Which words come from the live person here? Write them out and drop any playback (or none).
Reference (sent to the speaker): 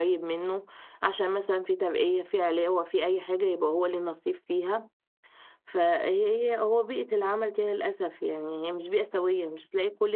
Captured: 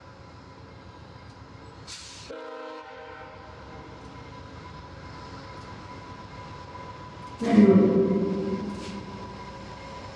ايوه